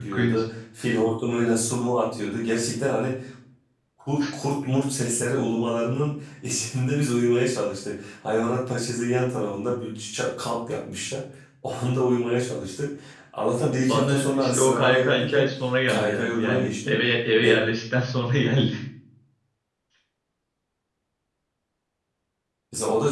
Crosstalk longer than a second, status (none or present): present